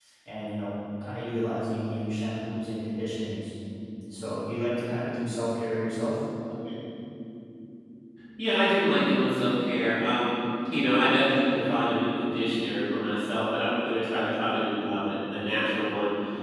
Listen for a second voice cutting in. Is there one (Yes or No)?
No